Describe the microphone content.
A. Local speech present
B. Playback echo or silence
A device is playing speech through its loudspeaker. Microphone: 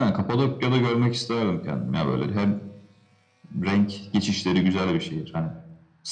B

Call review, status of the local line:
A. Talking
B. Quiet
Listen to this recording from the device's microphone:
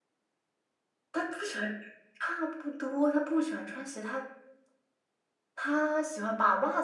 B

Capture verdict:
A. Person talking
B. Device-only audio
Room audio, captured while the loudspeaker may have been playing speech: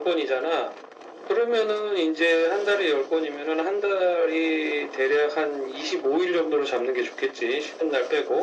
B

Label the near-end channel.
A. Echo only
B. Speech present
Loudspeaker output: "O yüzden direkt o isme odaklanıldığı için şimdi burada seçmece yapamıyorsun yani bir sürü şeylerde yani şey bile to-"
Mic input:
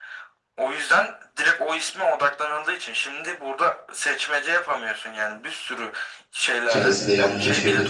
B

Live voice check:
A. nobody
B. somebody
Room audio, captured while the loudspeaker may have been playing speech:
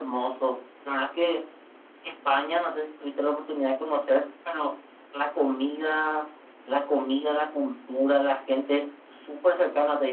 A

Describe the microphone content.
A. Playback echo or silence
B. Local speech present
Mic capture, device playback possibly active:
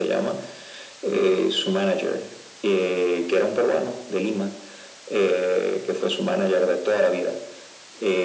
A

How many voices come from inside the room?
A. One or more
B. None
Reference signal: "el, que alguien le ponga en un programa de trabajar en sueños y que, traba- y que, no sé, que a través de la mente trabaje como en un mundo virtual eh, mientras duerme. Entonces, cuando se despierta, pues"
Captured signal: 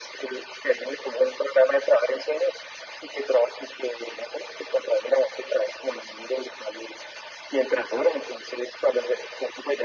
B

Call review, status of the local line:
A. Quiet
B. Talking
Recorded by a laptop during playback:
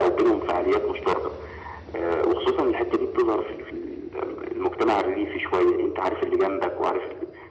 A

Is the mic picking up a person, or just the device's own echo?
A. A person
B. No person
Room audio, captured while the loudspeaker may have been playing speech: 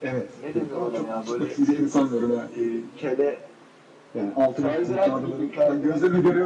B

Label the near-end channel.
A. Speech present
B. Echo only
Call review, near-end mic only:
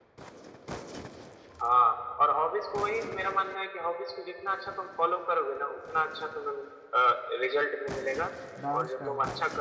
A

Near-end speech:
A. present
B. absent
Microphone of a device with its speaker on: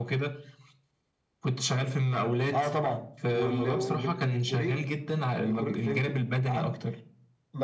B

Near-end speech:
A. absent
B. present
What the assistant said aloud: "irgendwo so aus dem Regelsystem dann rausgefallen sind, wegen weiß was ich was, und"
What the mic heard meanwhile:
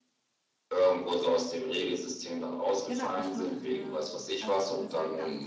B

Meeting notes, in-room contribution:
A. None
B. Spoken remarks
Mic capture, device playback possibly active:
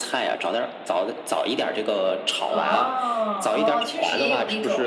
B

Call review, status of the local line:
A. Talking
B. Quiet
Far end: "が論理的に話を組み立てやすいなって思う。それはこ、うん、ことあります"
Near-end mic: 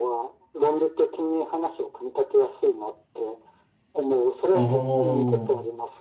A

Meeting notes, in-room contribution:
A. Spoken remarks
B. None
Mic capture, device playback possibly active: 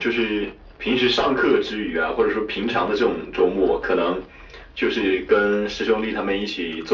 B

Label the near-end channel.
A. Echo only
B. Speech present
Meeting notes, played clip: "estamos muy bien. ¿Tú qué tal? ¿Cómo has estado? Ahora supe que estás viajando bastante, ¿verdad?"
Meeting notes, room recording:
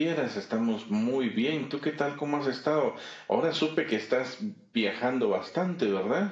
A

